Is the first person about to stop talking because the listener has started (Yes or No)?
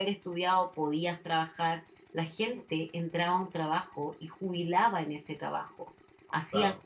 No